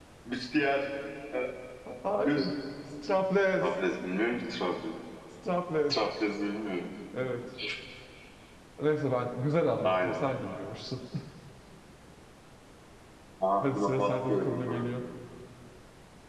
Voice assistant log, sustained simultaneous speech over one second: present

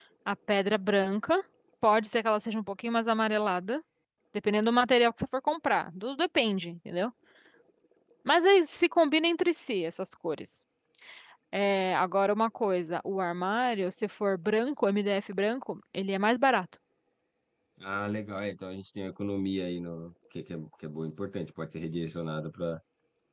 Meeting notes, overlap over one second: none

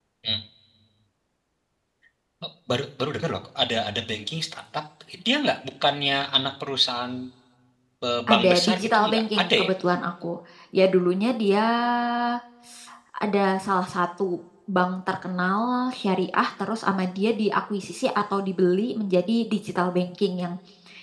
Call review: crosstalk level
present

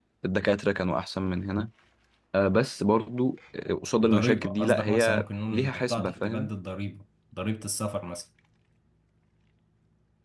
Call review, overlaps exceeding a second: present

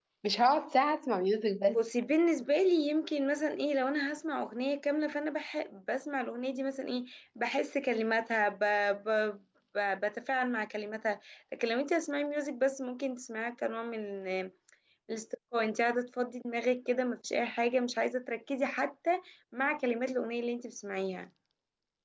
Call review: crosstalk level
none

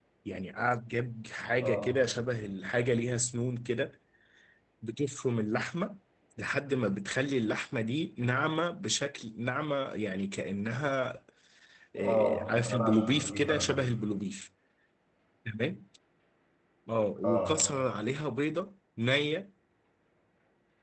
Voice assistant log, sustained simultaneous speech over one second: present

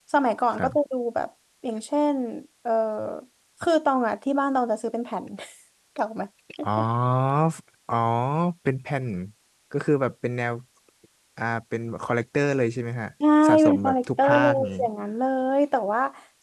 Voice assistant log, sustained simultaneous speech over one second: present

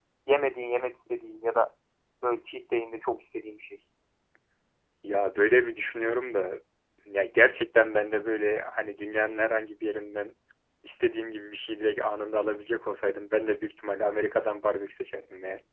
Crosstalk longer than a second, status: none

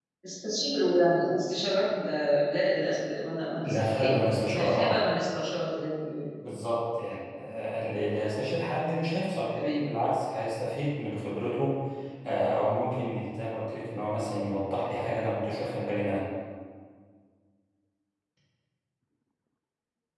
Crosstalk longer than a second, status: present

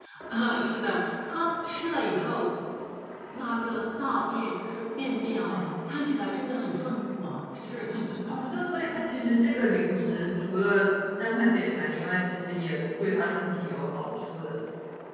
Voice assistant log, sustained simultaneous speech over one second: none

